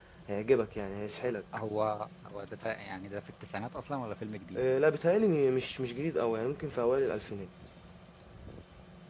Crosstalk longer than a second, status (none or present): none